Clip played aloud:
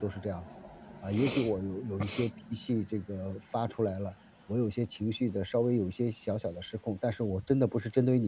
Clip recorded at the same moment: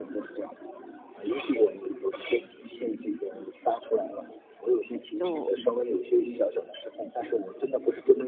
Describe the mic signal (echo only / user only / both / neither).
both